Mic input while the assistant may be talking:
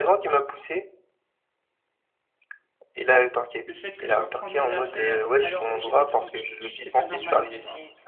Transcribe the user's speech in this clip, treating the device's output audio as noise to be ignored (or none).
le fait que je dois prendre mes affaires alors que j'étais tranquille, c'est pas normal», tu vois?